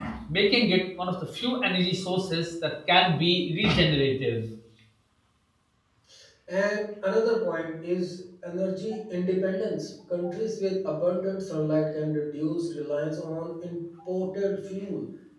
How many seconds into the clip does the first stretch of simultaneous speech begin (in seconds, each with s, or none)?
none